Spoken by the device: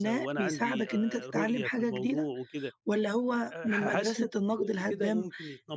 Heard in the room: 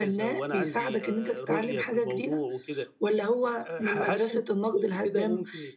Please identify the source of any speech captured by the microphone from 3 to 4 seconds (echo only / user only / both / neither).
echo only